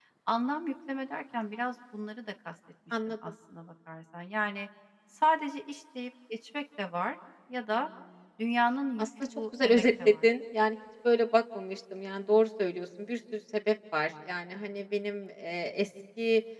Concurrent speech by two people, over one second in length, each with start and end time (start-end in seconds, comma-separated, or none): 9.0-10.3